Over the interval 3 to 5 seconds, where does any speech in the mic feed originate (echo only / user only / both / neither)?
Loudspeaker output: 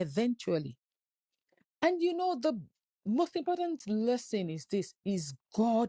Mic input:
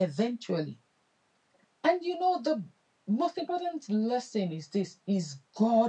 echo only